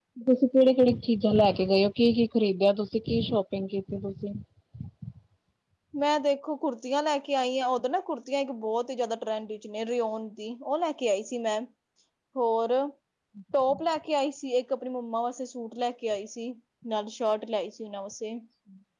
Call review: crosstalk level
none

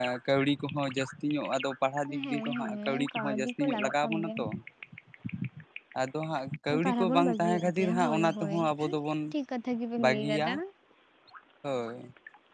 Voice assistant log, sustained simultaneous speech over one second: present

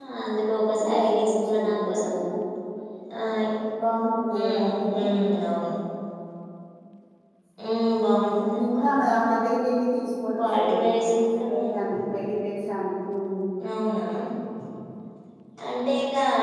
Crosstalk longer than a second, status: present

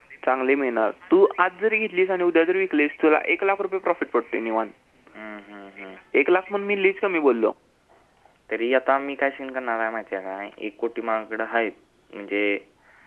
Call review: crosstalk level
none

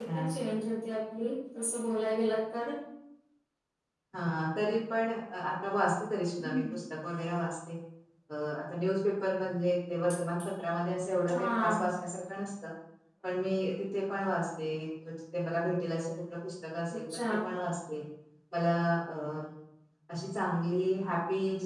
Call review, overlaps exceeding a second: none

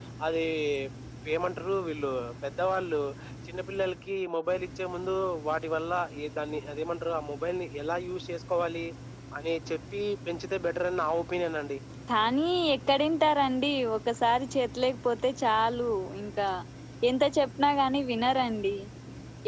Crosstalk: none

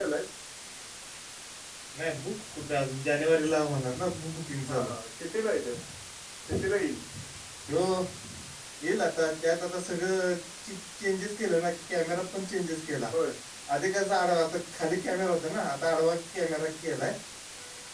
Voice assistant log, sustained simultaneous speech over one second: none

